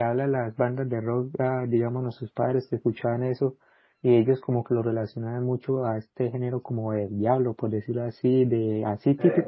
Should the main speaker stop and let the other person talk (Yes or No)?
No